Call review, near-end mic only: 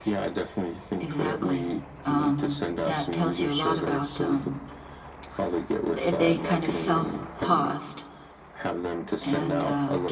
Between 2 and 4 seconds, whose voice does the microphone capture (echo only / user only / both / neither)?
both